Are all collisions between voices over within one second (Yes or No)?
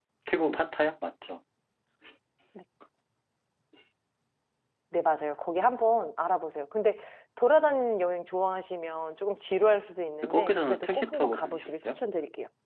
No